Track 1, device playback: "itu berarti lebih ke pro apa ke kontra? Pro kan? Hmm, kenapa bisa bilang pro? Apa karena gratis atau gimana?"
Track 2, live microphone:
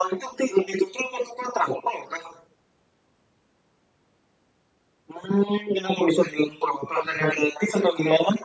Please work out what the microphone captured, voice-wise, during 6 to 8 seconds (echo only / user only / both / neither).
echo only